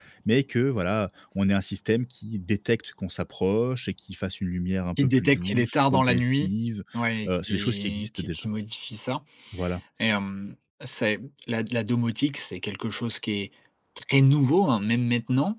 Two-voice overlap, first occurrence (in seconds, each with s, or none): 5.0 s